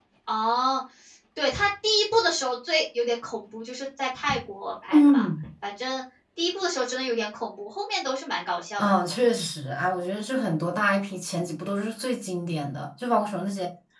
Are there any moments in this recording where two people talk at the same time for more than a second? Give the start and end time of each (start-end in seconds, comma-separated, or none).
none